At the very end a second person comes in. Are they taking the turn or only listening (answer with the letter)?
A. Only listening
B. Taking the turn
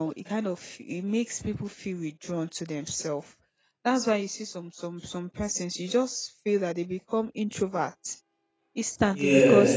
A